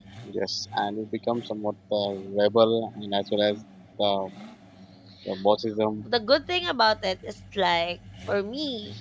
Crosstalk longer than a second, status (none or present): none